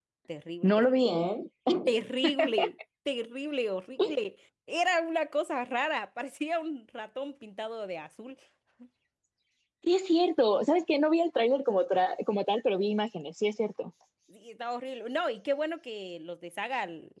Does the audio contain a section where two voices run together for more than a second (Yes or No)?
No